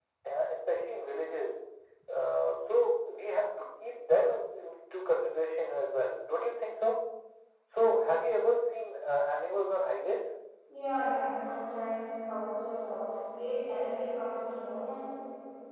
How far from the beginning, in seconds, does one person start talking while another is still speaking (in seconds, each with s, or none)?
none